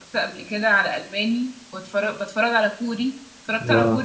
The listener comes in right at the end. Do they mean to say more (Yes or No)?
Yes